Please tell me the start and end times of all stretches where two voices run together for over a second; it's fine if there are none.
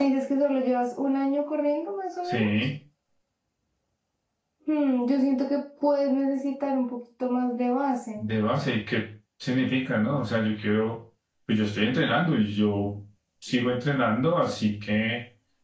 none

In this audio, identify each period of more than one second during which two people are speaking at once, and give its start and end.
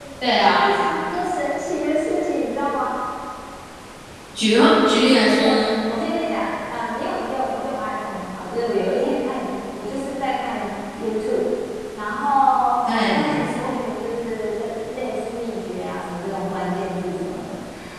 none

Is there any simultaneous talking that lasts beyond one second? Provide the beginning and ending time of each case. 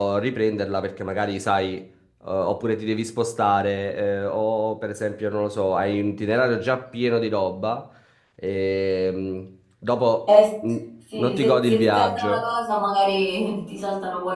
11.2-12.4

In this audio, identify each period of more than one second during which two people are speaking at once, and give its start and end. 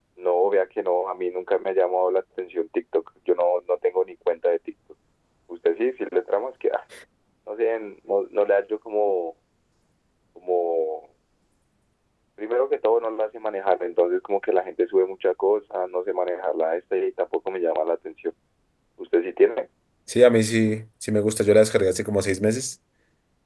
none

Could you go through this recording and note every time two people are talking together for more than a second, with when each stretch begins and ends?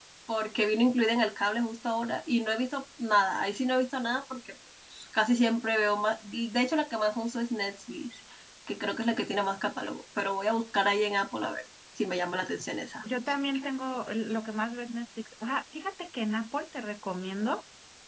none

